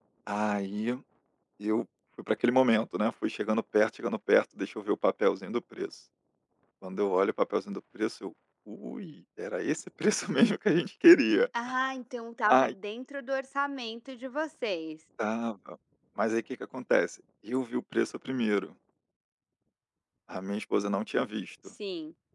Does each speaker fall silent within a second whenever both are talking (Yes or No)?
Yes